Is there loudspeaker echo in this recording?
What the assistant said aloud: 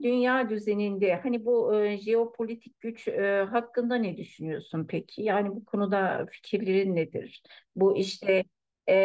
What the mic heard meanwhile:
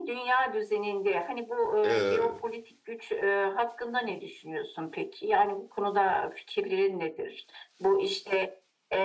Yes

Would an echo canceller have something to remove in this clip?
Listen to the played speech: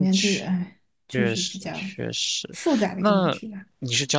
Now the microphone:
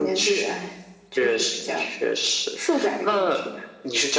Yes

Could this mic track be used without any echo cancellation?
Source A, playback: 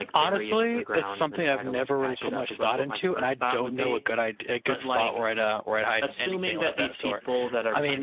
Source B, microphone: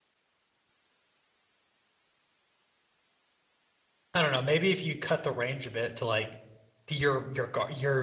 Yes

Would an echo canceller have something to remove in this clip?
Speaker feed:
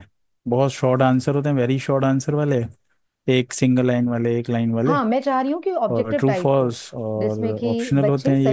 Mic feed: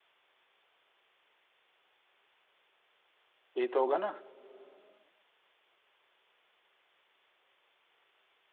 No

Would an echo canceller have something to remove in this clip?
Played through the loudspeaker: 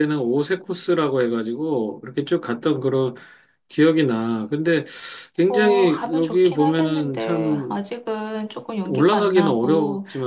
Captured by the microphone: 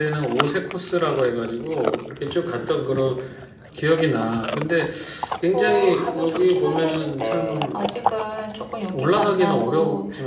Yes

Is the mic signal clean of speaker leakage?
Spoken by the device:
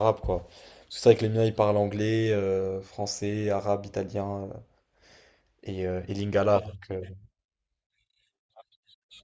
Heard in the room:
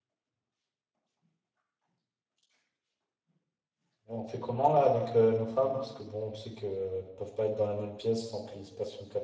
Yes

